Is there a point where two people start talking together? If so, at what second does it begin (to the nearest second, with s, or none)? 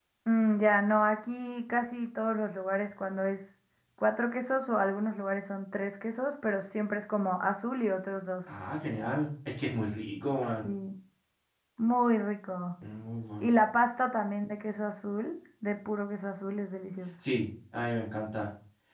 none